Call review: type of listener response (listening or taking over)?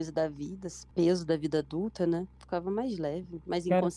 taking over